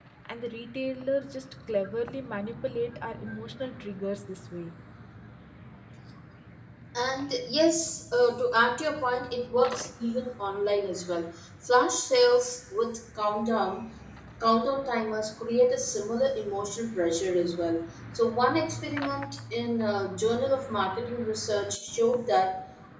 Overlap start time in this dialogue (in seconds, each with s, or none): none